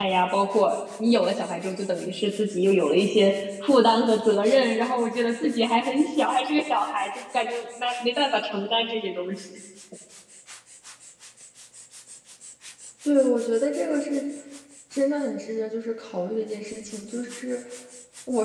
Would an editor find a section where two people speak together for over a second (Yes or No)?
No